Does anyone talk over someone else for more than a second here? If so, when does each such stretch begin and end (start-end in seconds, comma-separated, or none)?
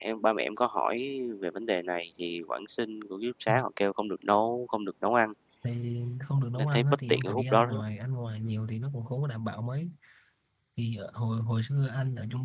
6.6-7.8